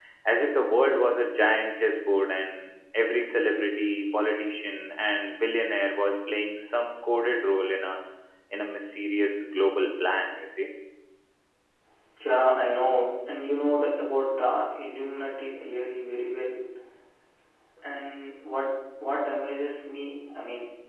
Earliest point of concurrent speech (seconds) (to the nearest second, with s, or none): none